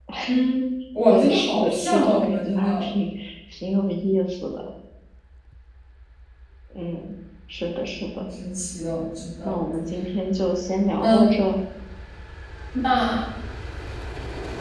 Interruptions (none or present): present